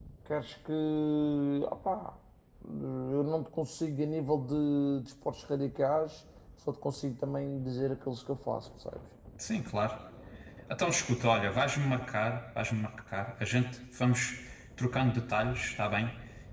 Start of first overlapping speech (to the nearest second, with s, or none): none